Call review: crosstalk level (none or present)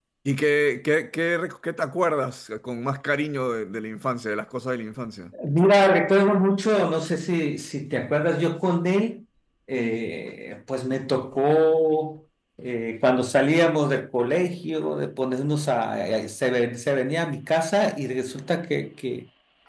none